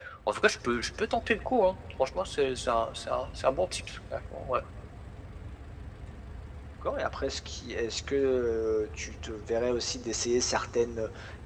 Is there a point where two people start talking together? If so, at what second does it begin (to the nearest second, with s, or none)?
none